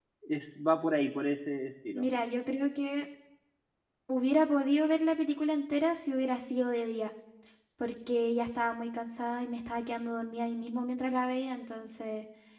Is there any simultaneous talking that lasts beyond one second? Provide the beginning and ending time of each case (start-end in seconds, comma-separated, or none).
none